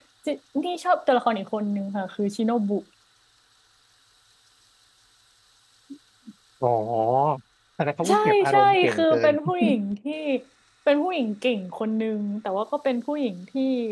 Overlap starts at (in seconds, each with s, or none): 8.1 s